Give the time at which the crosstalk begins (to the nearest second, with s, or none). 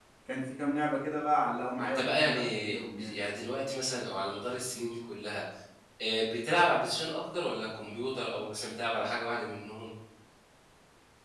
2 s